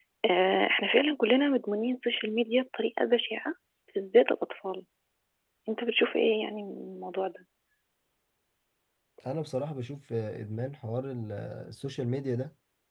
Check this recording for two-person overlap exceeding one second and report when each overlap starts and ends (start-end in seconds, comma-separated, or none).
none